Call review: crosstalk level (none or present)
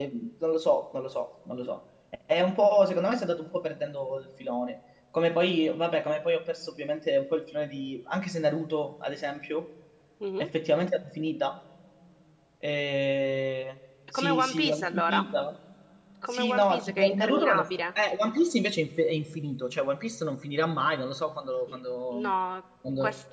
present